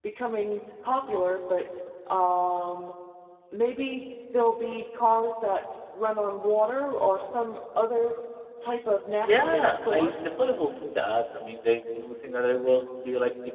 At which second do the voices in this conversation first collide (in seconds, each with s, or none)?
9.2 s